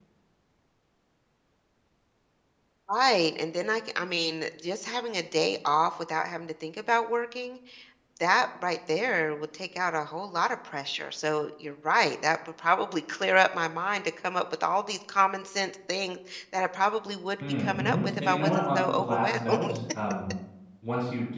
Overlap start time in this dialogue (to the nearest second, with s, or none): 17 s